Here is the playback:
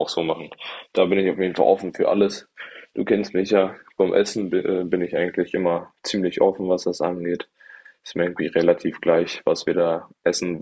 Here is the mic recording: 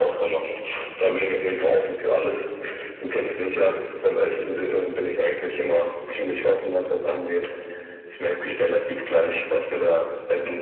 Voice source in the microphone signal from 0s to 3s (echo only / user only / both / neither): echo only